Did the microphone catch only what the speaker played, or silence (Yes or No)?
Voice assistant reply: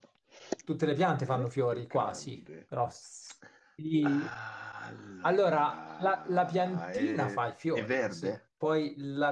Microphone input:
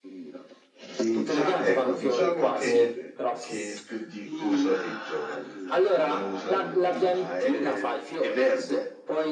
No